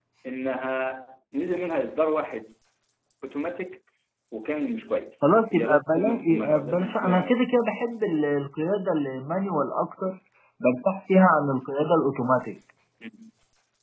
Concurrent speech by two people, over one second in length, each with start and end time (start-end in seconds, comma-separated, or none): 5.5-7.4